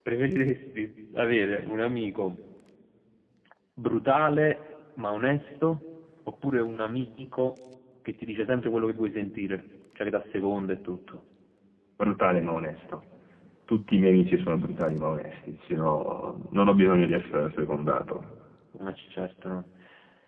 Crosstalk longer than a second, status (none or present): none